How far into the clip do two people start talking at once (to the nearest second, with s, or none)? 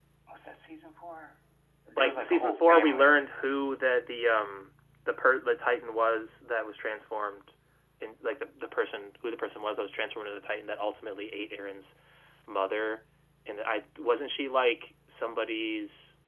2 s